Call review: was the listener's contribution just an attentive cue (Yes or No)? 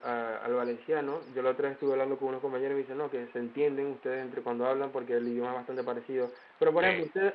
Yes